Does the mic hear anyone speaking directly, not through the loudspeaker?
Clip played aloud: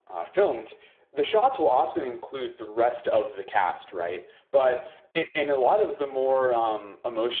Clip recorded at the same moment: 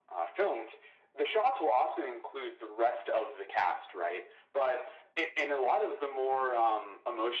No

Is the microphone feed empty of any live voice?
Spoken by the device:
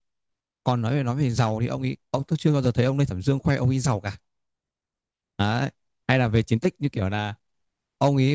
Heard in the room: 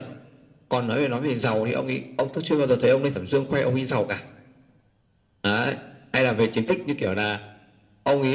Yes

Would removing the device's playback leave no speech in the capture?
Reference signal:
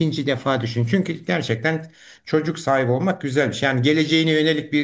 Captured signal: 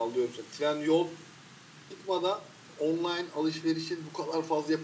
No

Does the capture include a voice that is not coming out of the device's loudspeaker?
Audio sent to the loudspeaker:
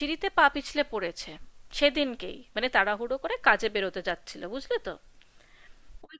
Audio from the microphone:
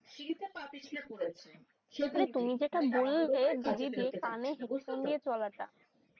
Yes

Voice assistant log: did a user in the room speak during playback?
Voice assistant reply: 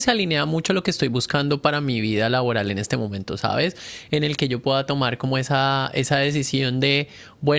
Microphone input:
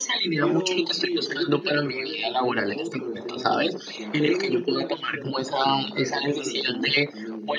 Yes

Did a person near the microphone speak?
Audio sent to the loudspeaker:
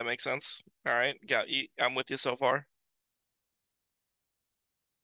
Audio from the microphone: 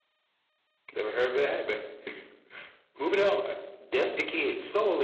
Yes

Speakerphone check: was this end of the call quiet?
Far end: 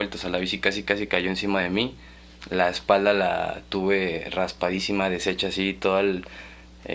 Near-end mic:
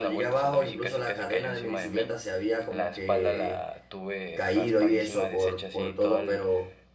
No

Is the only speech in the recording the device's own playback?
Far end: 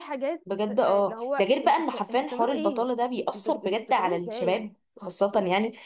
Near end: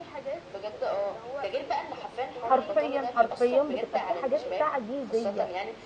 No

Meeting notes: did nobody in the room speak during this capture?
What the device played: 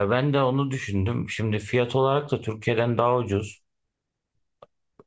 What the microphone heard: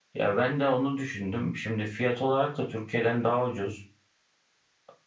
Yes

